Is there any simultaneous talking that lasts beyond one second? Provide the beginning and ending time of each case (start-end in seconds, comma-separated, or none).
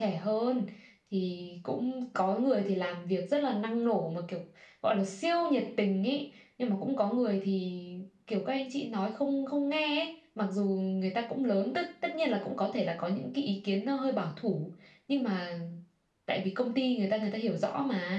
none